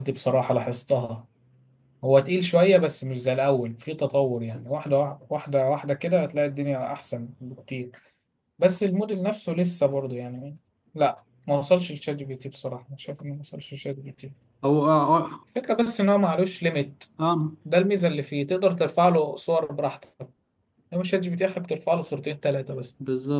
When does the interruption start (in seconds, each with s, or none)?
none